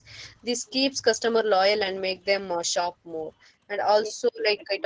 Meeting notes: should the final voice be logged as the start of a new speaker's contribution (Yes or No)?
No